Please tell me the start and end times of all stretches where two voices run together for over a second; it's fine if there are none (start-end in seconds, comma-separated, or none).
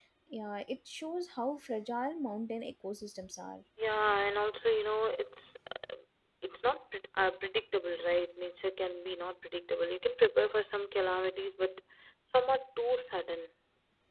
none